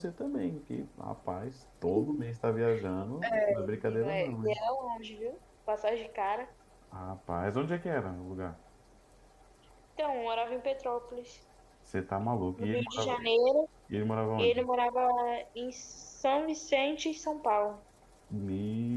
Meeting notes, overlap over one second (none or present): present